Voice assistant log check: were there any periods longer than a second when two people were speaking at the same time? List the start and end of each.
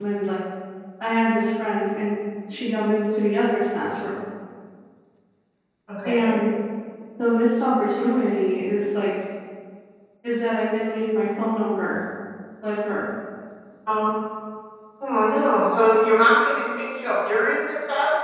none

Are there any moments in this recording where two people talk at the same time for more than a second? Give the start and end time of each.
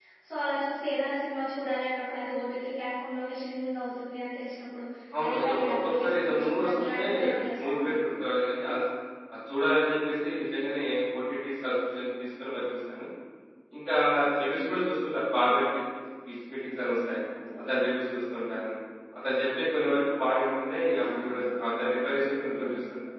5.2-7.8

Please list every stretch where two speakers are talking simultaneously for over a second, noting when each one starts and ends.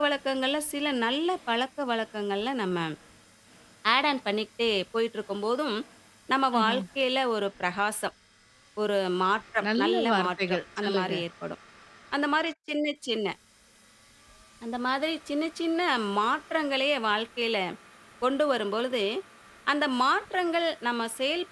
9.8-11.1

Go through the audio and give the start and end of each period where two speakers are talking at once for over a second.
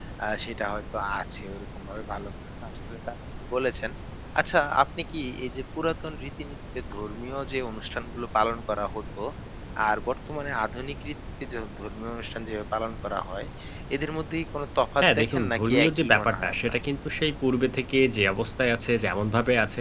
15.0-16.8

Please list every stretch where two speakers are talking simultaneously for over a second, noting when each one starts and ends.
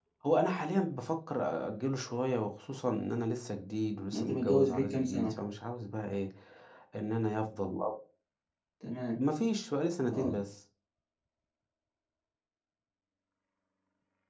4.1-5.4

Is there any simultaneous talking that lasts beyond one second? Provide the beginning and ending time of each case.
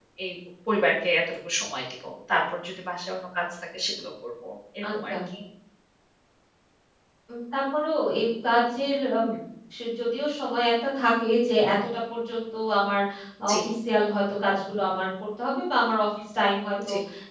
none

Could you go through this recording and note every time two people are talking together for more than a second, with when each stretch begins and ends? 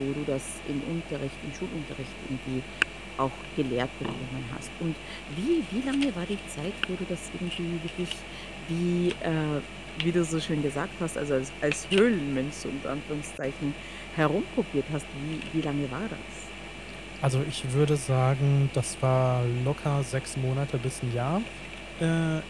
none

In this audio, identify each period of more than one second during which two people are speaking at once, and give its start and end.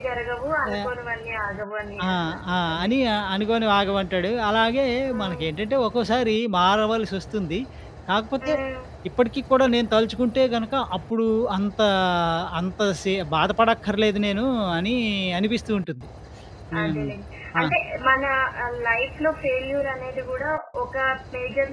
none

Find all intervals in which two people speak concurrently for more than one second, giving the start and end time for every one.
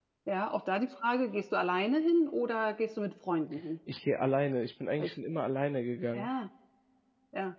none

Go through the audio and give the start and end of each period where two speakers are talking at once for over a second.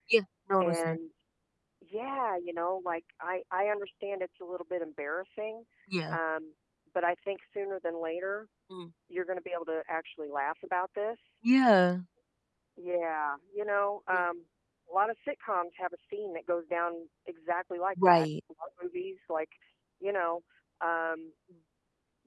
none

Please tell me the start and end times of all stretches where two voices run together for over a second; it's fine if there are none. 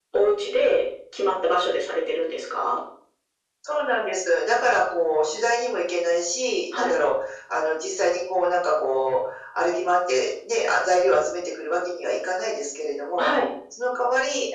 none

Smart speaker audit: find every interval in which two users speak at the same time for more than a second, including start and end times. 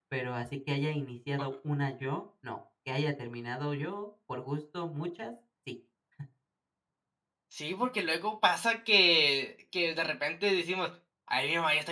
none

